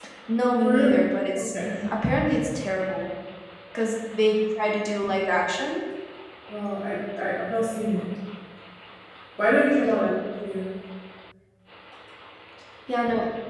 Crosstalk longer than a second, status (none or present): none